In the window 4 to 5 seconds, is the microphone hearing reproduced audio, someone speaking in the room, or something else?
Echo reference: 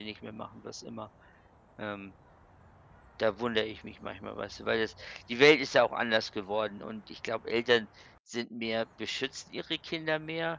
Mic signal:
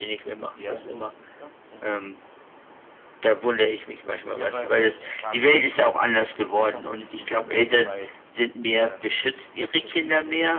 both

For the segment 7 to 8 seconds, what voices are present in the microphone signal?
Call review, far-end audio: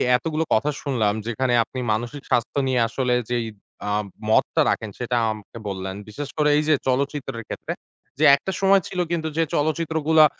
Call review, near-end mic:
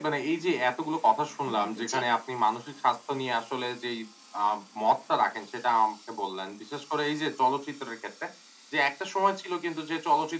echo only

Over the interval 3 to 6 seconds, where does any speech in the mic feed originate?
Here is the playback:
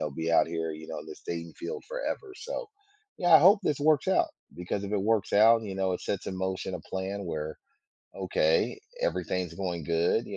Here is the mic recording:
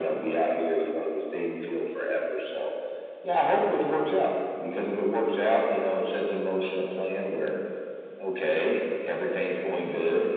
echo only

